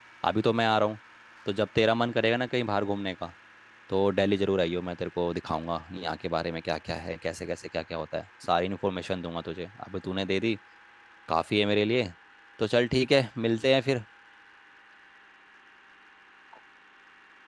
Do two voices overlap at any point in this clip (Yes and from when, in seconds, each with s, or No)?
No